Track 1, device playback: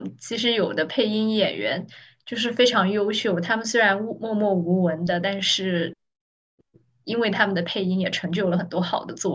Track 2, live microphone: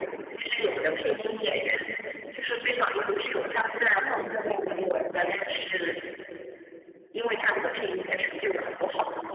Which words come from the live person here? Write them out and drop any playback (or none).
哦，明白明白。